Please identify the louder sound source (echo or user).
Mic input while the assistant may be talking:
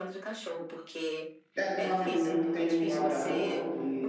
user